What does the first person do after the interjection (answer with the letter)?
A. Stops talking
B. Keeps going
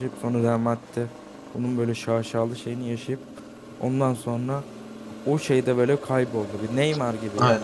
A